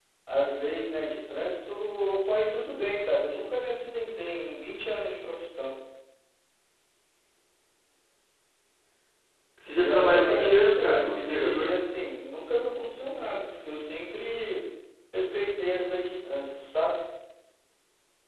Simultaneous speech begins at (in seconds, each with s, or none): 9.8 s